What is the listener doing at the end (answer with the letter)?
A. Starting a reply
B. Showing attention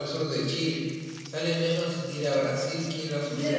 A